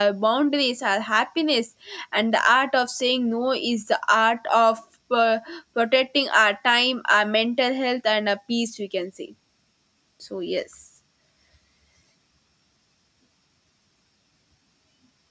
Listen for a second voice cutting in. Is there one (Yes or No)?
No